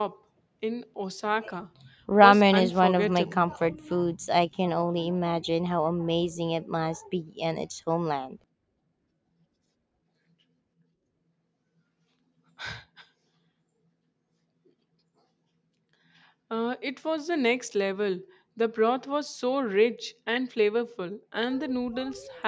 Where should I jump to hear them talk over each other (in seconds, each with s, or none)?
2.2 s